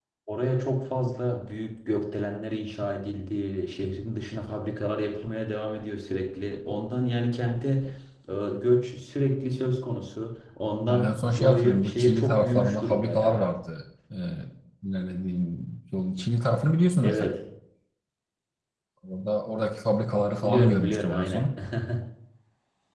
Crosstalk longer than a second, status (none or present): present